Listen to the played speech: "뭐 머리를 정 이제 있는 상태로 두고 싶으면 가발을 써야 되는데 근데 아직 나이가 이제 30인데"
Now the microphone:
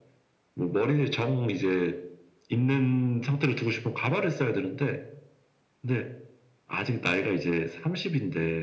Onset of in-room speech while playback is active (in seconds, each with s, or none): none